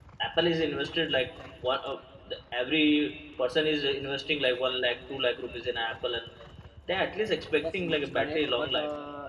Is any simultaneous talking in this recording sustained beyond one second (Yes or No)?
Yes